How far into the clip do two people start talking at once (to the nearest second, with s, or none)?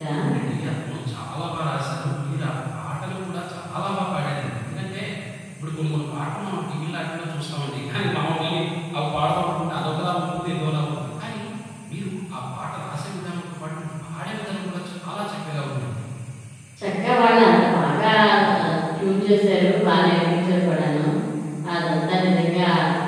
none